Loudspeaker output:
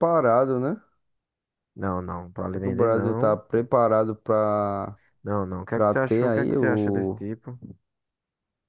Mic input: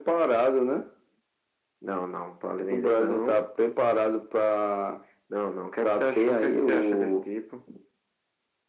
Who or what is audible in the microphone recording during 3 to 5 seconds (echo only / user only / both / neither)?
echo only